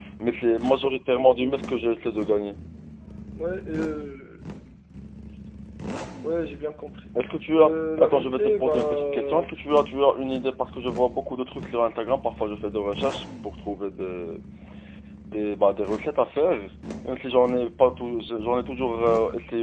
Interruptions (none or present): present